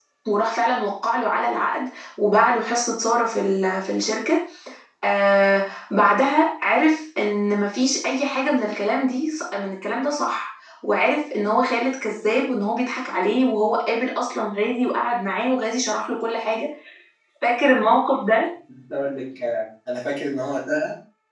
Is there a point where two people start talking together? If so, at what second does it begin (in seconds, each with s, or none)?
none